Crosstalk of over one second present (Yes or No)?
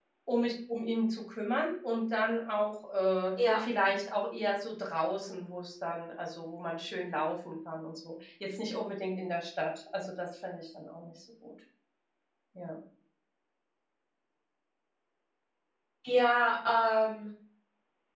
No